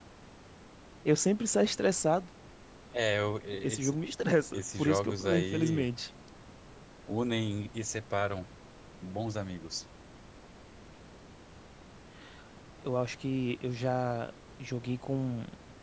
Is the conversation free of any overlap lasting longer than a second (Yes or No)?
No